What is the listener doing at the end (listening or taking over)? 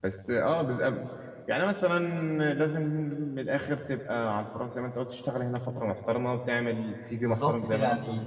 taking over